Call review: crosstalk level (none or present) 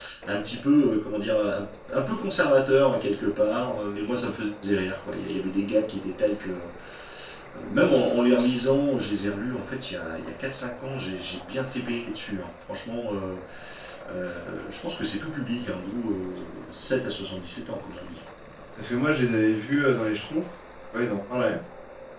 none